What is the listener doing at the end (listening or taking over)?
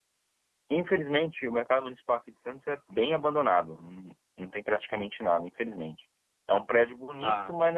listening